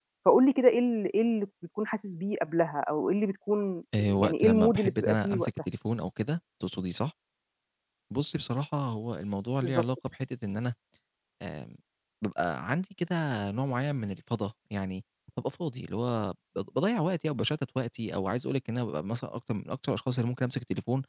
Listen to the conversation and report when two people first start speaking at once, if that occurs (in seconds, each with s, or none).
4.0 s